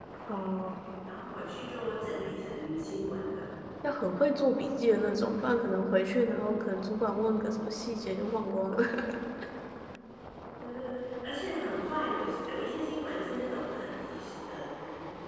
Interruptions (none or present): none